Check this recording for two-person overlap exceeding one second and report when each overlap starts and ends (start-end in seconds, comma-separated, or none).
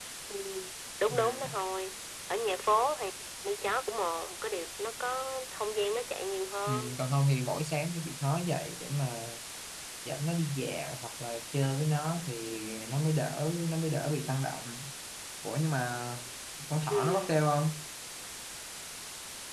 none